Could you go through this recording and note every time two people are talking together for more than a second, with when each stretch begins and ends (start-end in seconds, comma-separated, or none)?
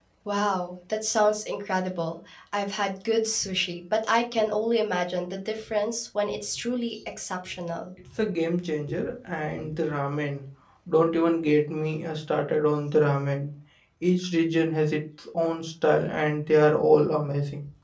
none